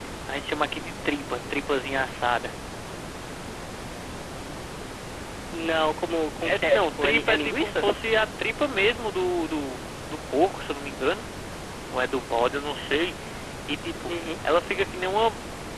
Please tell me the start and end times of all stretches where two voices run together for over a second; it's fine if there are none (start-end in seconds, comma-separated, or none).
6.4-7.8